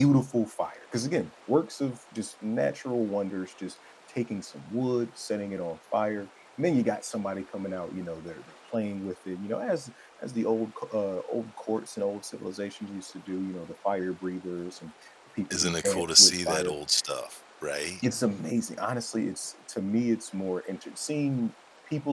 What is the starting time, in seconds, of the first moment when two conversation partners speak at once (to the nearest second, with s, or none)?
16 s